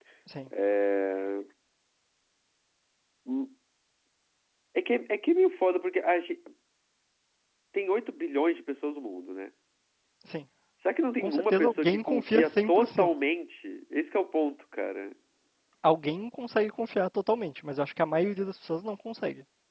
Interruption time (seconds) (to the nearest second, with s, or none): 11 s